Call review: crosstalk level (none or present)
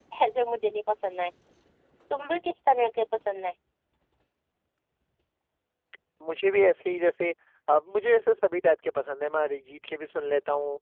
none